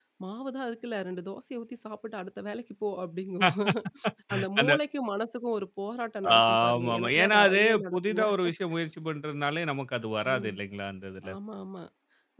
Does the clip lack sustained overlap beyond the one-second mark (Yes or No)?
No